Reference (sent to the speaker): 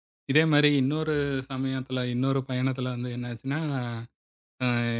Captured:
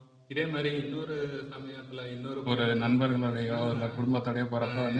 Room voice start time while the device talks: 2.5 s

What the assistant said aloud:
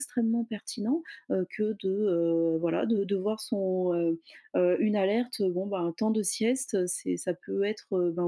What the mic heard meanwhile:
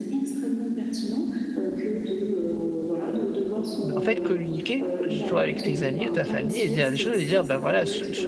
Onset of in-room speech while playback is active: 3.8 s

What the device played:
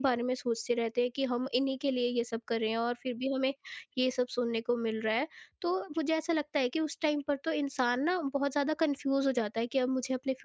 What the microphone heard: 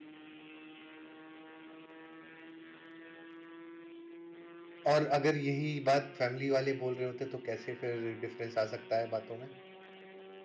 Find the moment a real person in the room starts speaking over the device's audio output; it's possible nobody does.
4.9 s

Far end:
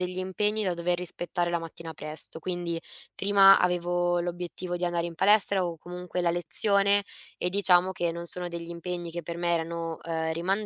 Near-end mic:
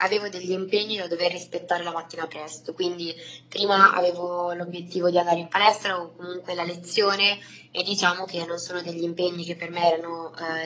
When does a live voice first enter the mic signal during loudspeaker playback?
none

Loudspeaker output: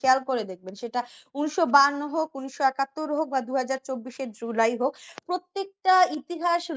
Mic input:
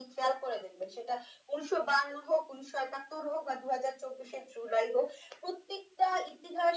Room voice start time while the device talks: none

